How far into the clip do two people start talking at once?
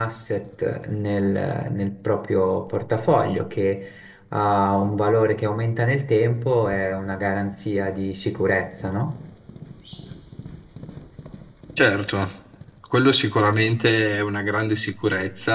none

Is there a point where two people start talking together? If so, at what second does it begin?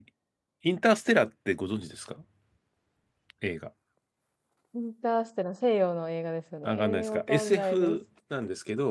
6.6 s

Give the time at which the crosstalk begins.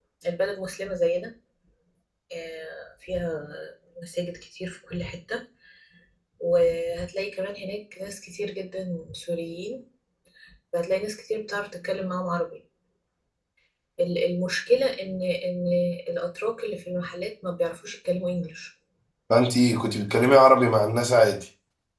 none

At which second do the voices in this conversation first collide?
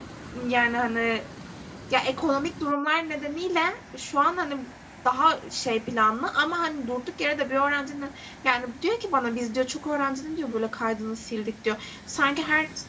none

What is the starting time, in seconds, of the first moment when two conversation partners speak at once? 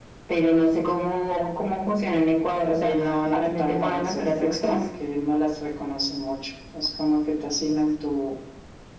2.8 s

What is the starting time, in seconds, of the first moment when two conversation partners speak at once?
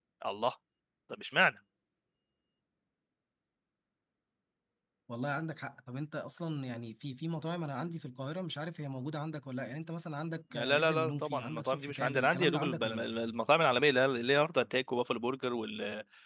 10.5 s

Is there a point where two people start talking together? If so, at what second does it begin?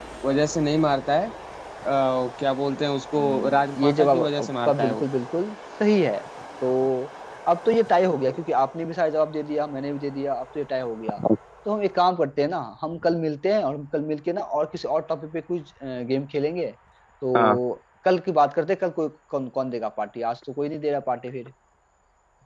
3.1 s

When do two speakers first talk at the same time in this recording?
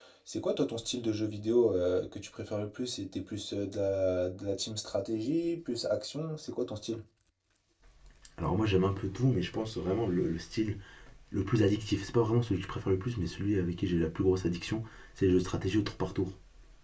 none

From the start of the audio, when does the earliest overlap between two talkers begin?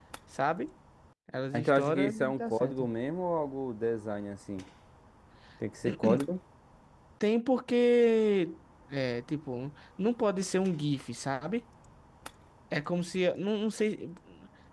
1.5 s

